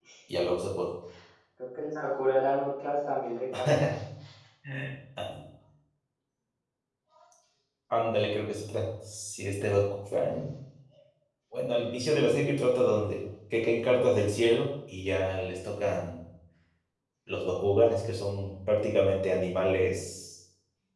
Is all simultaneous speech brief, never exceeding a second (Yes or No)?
Yes